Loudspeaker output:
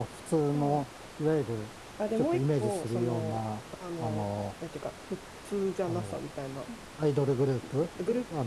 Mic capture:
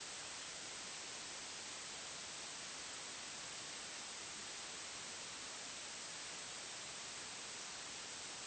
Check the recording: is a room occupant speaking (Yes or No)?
No